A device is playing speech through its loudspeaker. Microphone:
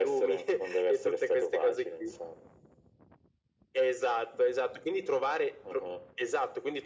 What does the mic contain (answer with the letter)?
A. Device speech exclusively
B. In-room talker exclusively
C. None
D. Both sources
A